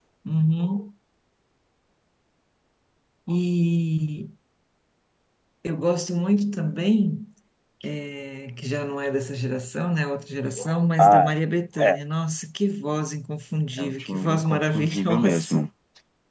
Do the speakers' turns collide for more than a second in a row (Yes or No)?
Yes